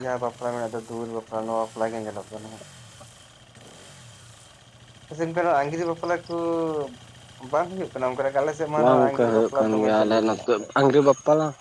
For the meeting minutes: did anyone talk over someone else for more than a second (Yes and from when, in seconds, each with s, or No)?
Yes, from 8.8 s